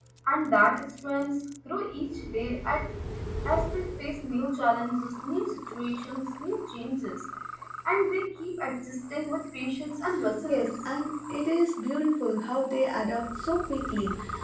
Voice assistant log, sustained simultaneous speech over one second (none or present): none